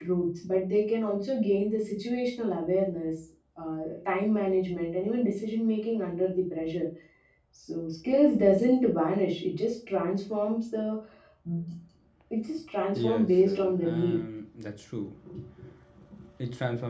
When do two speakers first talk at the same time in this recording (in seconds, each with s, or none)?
12.9 s